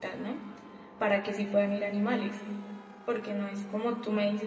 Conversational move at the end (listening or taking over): listening